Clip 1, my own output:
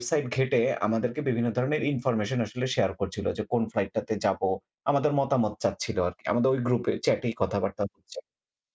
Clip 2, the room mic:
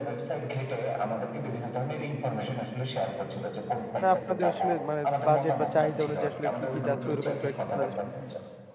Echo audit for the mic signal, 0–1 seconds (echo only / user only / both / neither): echo only